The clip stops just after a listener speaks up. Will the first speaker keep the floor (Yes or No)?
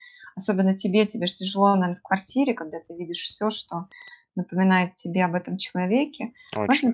Yes